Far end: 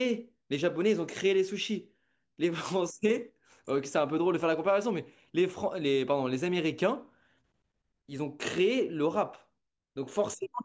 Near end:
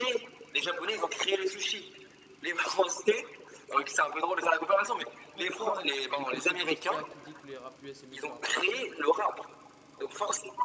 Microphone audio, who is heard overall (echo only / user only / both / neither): both